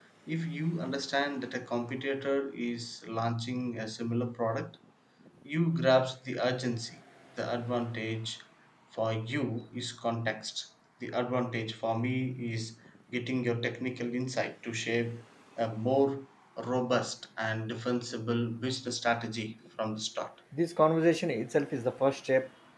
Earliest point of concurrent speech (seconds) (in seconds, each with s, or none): none